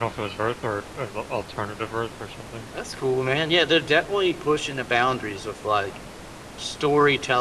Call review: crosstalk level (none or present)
none